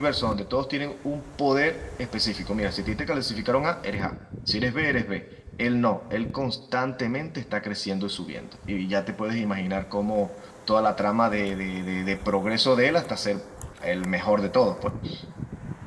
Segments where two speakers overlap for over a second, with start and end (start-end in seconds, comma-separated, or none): none